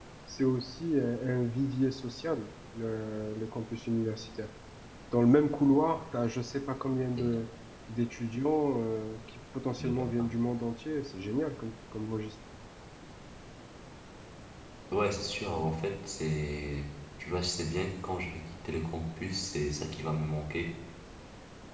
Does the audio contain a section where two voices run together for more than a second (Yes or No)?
No